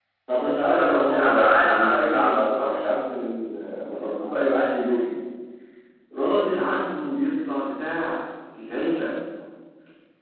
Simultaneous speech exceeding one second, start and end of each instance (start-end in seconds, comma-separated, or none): 0.6-2.9